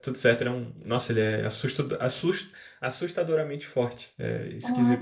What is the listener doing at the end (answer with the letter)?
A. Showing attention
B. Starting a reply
B